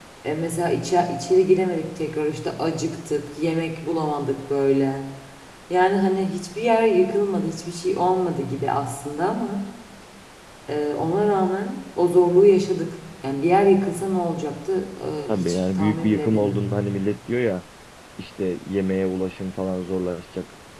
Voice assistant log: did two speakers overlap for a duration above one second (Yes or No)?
Yes